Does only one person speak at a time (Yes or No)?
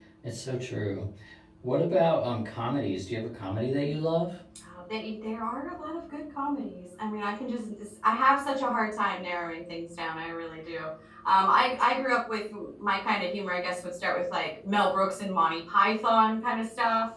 Yes